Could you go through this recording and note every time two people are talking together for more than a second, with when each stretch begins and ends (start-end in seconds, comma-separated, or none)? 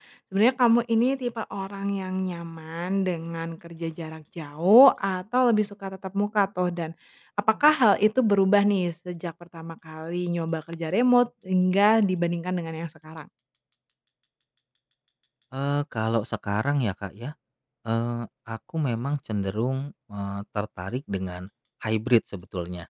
none